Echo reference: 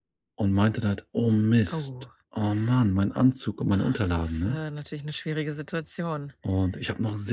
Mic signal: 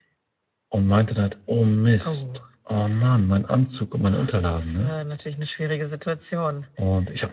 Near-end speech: none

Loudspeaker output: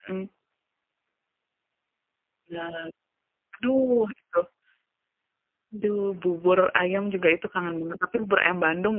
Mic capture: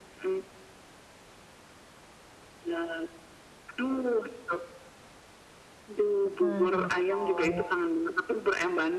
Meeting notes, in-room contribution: present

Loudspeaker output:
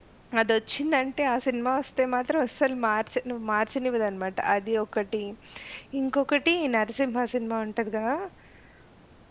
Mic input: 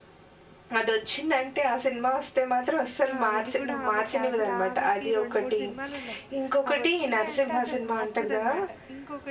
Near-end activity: present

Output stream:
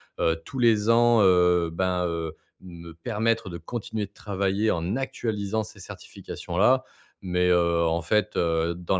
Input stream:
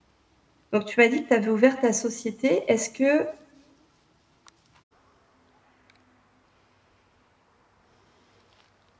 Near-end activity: present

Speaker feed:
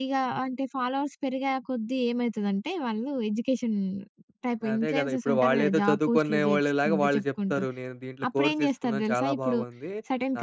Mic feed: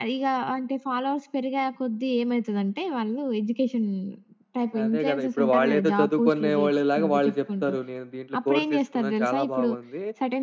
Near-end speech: none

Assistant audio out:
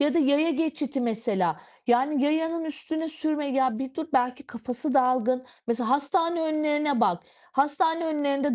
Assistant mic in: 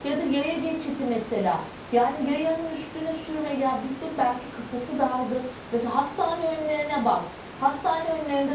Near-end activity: none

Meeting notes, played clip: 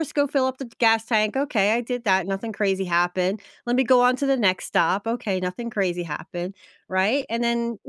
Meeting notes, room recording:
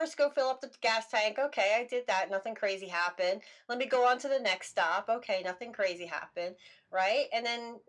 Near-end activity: none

